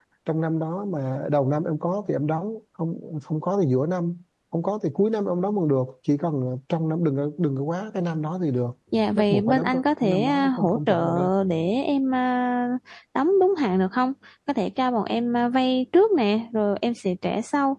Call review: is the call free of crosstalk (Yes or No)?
No